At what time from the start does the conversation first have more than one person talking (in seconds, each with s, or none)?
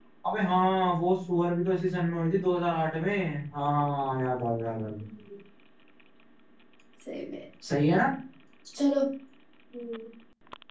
none